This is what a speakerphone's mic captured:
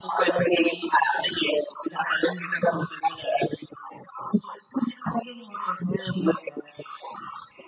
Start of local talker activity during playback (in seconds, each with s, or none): none